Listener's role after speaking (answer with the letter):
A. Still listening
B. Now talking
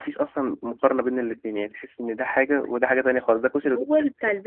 B